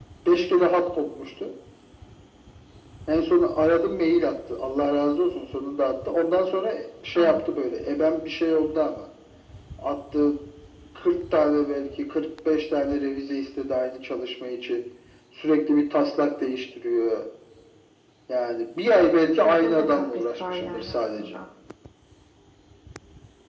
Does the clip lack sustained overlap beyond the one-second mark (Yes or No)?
No